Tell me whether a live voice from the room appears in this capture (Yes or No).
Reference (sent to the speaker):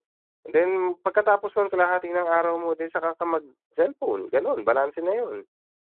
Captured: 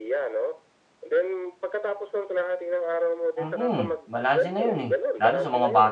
Yes